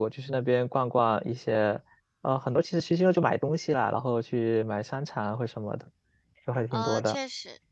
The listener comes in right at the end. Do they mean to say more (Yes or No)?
Yes